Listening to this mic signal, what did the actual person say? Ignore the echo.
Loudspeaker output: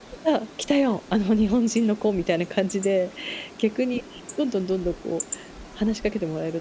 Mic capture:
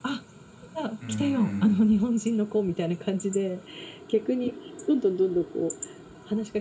うーん。

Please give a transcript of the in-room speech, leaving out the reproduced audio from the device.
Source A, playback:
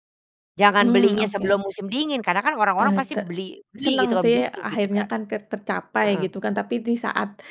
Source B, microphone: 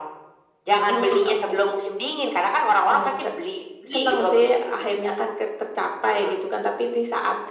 none

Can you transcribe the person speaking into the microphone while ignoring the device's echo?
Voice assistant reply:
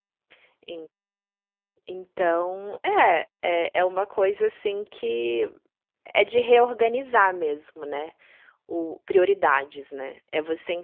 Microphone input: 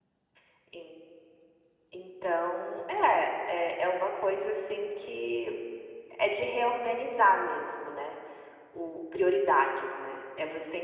none

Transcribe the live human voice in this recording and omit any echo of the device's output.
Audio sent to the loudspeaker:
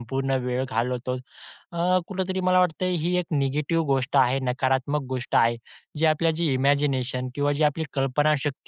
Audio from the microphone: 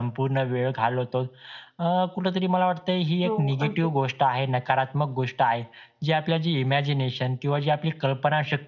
हो, अगदी.

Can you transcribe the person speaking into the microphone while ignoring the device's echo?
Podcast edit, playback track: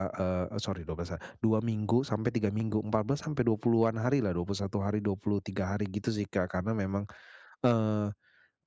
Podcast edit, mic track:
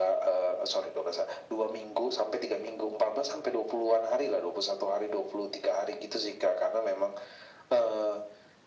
none

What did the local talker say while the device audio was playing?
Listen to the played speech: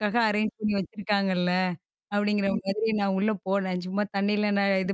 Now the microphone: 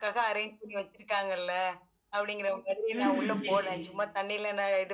ம்ஹ்ம். சரி சரிங்க.

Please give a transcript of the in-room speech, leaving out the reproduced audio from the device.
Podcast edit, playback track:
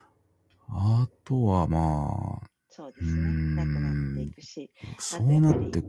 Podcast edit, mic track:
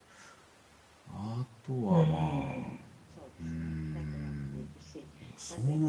うーん。

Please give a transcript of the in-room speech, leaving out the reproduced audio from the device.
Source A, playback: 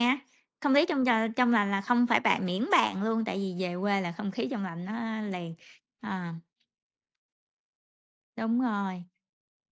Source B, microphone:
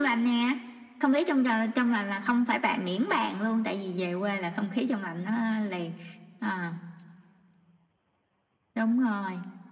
none

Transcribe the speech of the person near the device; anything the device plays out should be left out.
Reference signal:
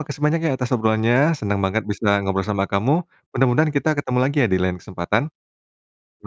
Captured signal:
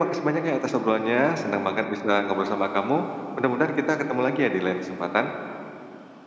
none

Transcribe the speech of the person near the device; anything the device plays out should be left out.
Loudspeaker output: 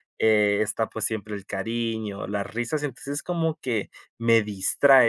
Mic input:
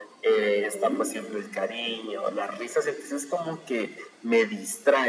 Ujú.

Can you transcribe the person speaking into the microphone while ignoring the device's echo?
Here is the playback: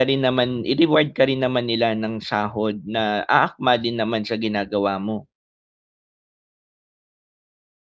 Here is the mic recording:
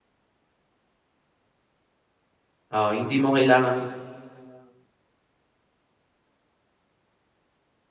oo, hindi mo kailangang

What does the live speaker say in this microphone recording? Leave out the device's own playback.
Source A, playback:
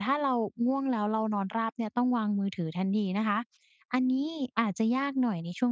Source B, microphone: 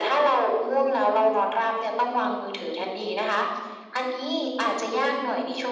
none

